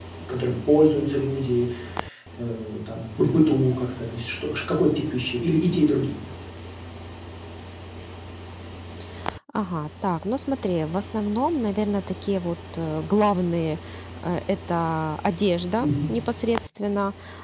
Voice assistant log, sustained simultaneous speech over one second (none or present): none